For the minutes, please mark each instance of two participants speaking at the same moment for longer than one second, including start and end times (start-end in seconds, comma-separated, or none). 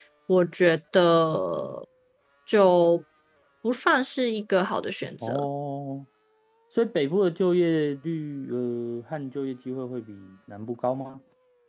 none